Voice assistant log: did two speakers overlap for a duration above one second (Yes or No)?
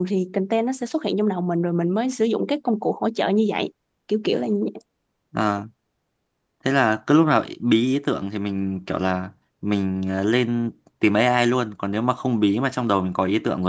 No